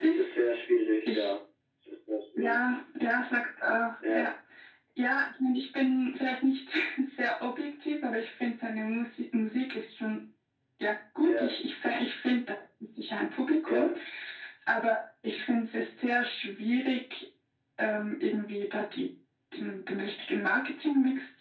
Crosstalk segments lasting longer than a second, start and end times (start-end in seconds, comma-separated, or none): none